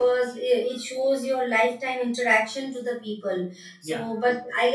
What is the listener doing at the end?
listening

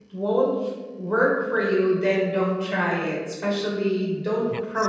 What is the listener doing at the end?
listening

